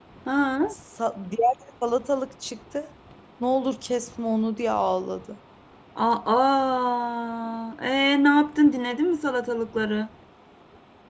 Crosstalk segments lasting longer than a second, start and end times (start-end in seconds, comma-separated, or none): none